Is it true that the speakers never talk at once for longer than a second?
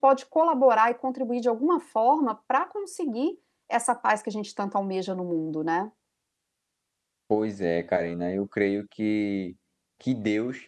Yes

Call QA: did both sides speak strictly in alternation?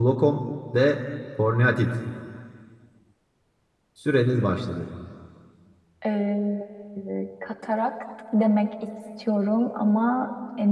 Yes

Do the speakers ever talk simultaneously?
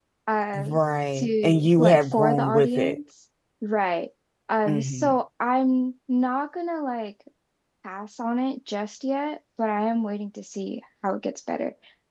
Yes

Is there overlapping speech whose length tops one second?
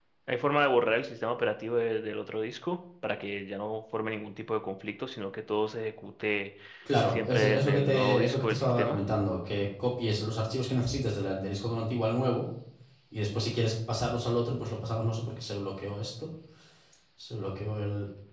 Yes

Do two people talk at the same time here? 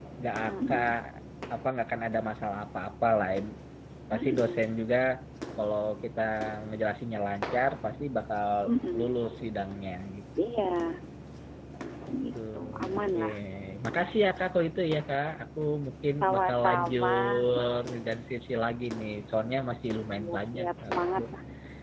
Yes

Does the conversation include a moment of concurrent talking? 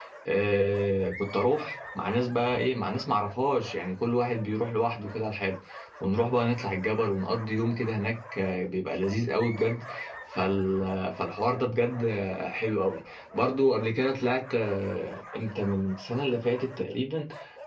No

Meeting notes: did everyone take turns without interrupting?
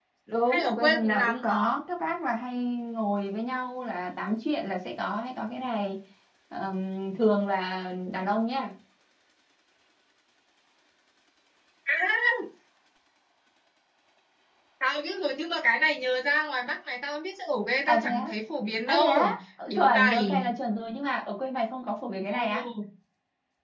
No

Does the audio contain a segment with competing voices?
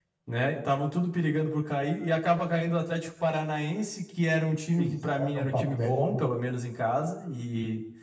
Yes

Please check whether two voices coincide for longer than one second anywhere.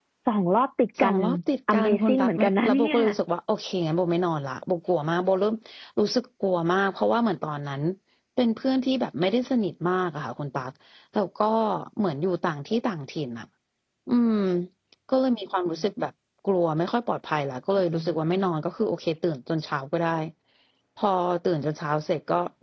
Yes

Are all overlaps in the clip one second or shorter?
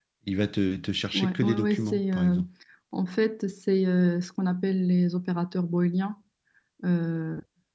No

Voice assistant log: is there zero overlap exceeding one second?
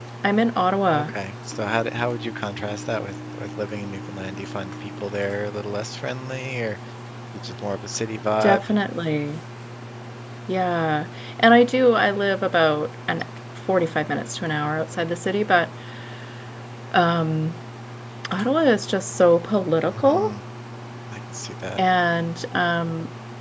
Yes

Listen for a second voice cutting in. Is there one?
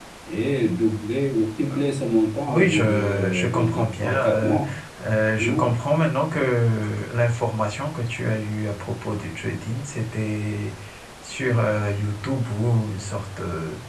Yes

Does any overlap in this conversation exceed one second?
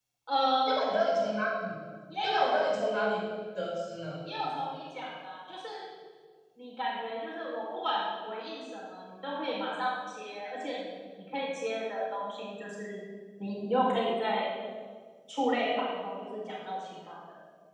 No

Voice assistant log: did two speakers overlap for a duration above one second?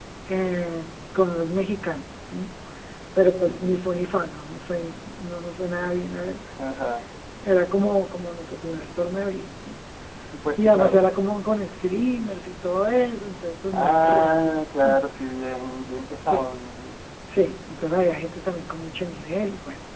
Yes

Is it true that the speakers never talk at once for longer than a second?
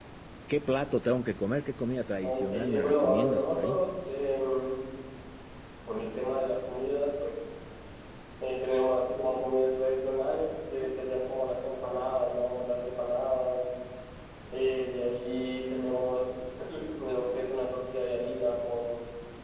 No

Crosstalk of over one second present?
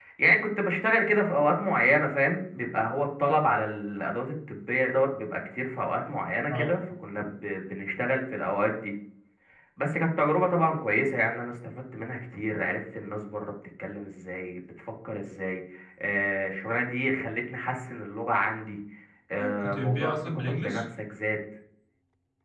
Yes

